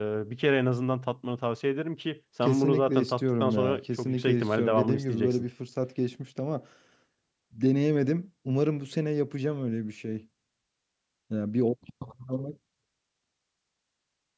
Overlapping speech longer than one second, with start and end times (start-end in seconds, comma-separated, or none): 2.4-5.5